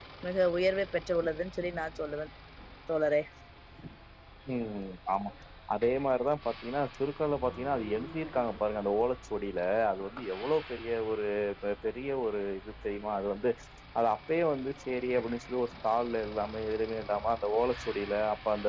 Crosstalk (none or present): none